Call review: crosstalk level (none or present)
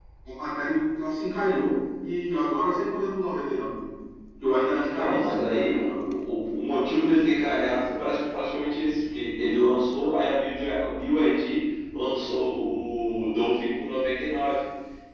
present